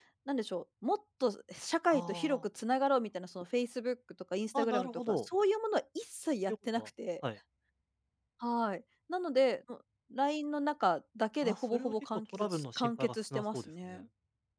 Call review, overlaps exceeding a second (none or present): present